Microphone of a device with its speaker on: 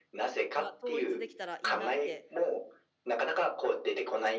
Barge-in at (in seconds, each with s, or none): 0.6 s